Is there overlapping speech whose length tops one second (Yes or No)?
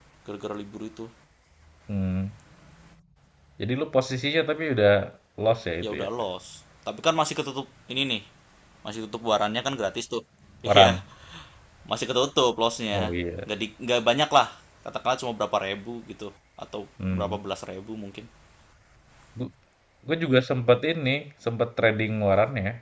No